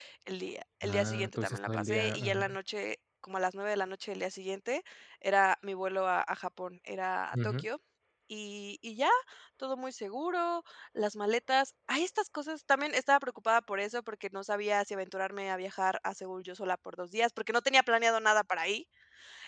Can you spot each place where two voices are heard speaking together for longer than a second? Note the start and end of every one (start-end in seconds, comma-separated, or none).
0.8-2.6